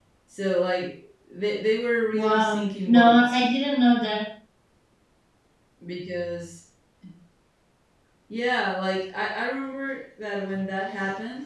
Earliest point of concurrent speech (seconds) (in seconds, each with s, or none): 2.1 s